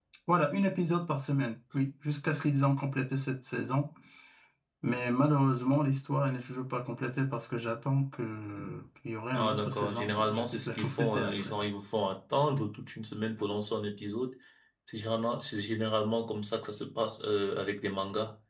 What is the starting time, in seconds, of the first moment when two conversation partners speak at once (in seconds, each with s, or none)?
9.3 s